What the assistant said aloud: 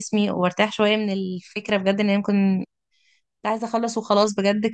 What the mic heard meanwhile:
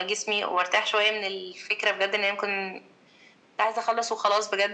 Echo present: Yes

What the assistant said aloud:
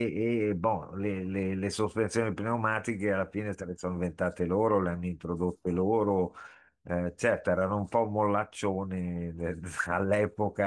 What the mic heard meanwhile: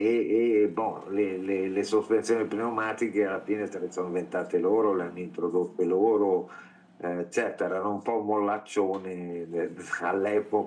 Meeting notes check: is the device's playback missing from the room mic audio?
No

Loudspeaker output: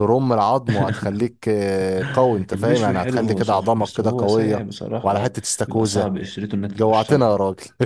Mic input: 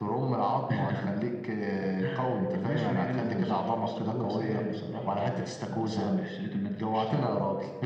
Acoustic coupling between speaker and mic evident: Yes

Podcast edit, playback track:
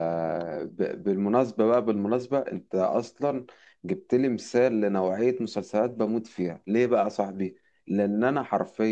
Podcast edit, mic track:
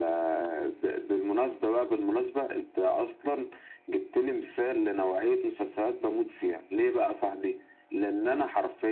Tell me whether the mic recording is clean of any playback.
No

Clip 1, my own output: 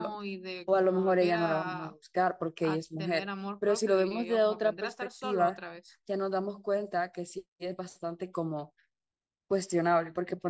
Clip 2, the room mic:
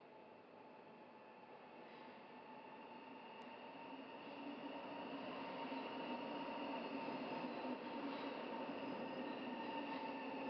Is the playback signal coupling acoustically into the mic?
No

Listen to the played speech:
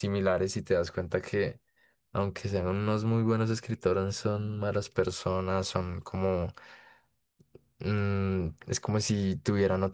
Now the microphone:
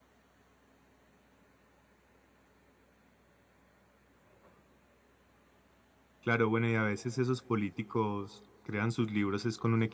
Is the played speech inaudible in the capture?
Yes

